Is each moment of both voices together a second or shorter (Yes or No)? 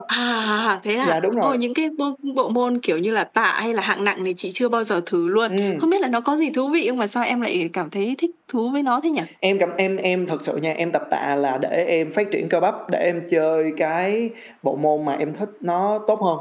Yes